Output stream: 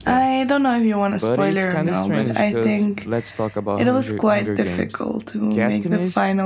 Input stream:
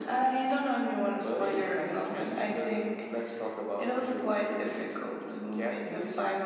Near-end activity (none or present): none